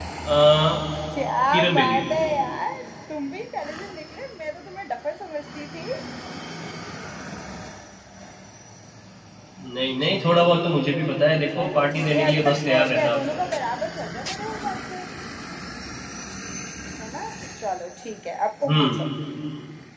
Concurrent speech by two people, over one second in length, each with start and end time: 11.6-13.2

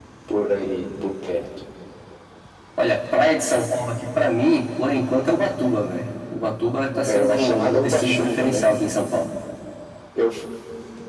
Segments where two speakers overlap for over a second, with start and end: 7.0-8.6

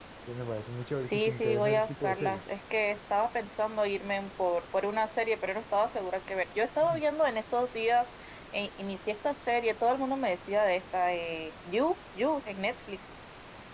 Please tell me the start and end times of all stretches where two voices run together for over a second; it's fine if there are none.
1.0-2.4

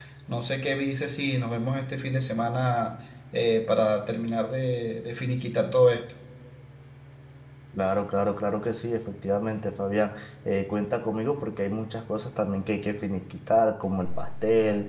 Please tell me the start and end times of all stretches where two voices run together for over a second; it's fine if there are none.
none

